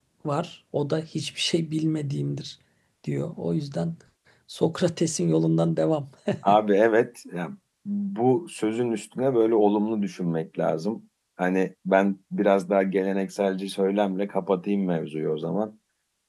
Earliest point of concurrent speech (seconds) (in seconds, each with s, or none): none